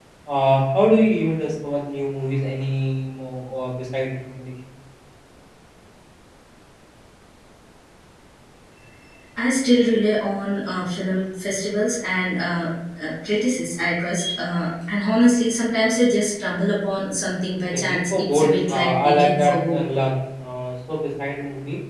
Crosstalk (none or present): present